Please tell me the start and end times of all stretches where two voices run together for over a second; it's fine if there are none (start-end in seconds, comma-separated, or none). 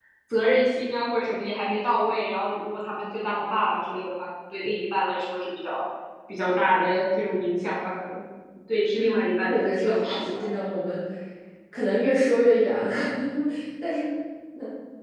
9.0-10.4